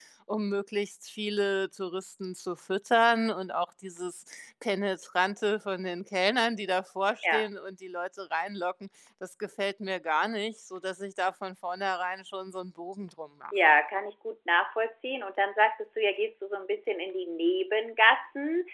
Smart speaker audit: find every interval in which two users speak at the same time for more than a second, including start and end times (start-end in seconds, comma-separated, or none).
none